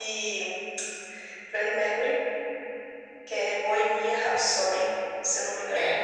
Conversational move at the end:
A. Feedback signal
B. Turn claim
B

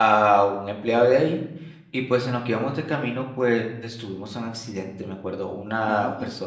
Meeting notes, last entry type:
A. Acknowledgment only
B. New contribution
A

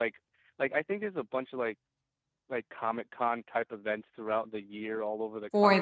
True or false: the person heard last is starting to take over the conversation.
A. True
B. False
B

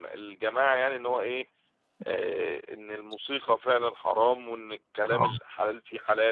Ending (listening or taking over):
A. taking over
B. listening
B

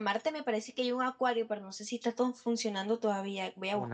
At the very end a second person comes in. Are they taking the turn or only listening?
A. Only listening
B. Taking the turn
B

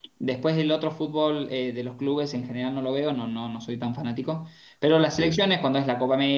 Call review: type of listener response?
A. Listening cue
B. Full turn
A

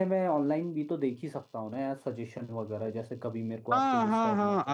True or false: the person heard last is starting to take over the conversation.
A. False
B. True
B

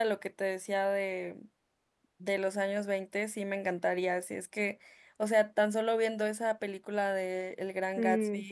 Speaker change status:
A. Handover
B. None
B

